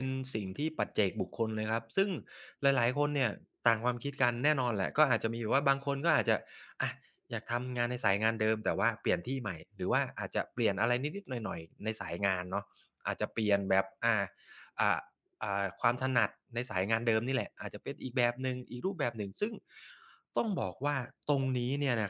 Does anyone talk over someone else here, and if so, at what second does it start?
none

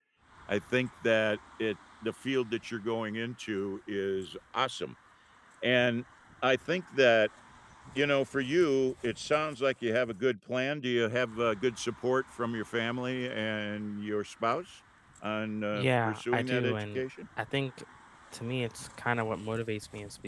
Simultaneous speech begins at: 16 s

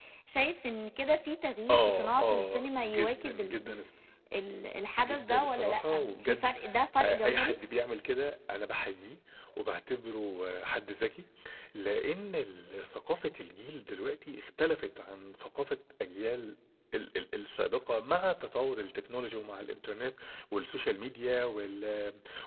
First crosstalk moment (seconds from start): 2 s

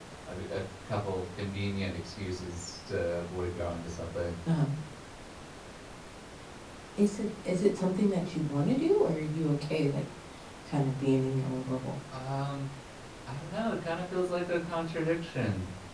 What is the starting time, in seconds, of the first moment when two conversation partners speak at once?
none

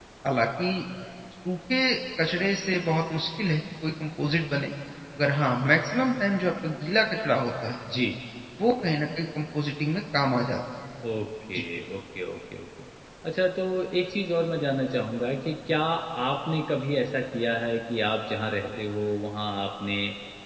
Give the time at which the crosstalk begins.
none

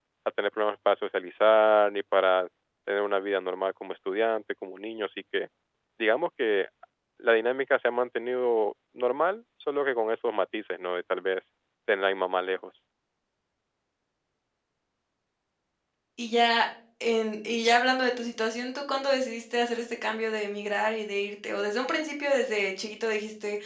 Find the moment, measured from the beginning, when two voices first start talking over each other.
none

